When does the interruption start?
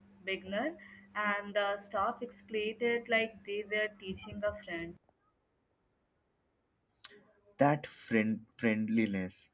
none

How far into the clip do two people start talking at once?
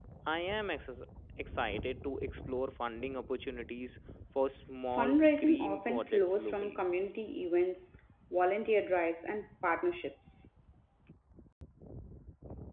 4.9 s

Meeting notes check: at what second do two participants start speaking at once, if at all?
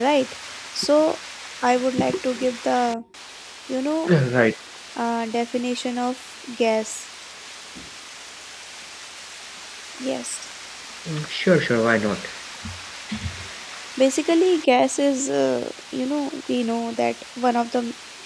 none

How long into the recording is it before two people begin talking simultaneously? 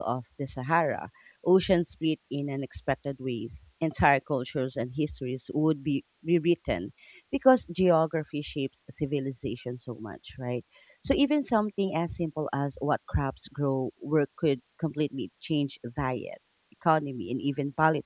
none

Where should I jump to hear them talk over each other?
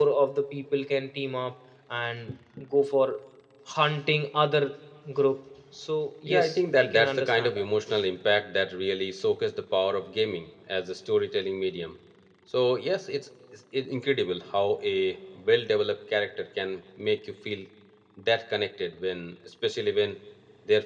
6.3 s

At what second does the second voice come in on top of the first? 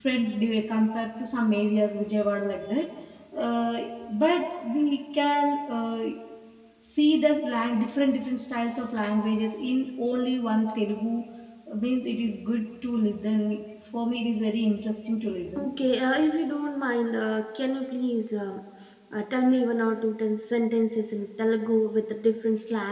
none

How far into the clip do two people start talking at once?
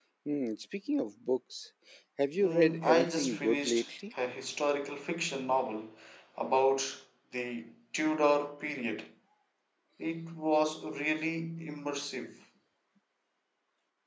2.4 s

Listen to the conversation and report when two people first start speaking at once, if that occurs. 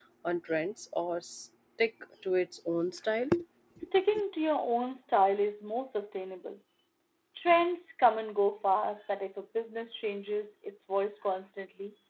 none

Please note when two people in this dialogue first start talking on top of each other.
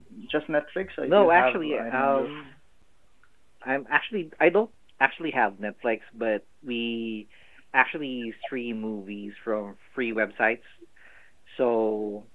1.0 s

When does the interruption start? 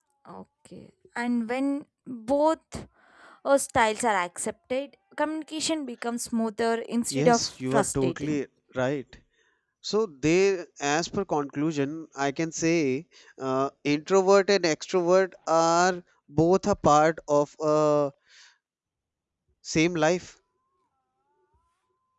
7.1 s

